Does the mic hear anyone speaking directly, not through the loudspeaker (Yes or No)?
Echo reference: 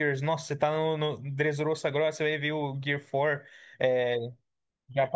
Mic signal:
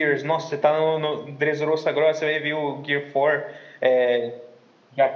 No